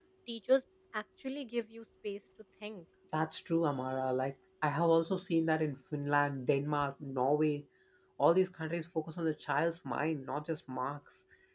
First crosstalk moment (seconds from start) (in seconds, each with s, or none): none